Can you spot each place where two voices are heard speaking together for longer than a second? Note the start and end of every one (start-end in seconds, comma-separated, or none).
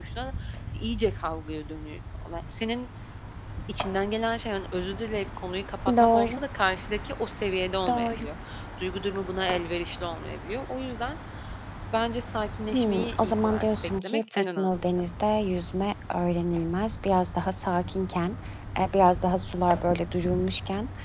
12.7-14.9